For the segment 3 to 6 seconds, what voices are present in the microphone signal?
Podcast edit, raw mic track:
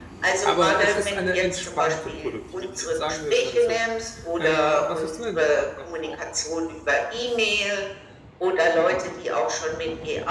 both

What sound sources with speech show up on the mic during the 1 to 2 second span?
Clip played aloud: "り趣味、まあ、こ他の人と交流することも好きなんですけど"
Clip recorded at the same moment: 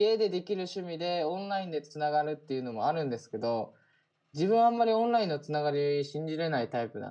user only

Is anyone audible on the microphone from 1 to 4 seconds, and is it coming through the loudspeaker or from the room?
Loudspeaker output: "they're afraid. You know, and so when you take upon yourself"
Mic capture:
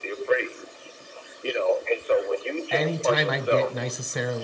both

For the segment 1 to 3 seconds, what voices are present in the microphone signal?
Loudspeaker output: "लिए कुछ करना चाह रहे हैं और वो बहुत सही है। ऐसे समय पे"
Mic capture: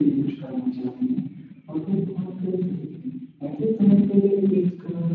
echo only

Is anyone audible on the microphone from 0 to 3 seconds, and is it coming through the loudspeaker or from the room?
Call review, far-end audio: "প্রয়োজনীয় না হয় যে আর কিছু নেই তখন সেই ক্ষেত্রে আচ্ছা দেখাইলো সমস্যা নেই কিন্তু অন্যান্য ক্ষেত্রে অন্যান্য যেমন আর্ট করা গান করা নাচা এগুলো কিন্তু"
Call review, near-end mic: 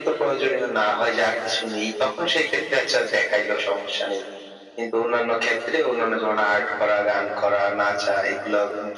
echo only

